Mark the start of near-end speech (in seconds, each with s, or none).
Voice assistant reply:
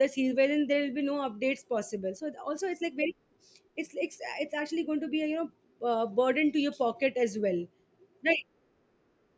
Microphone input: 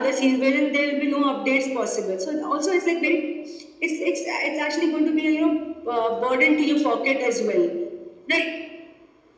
none